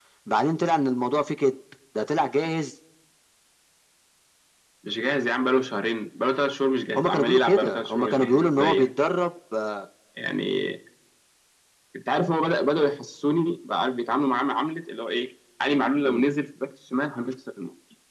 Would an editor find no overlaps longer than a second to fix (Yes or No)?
No